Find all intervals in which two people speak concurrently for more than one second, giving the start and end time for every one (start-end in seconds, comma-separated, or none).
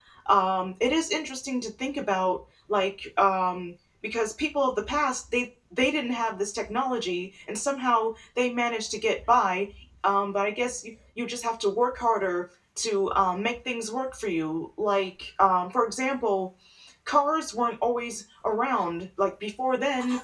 none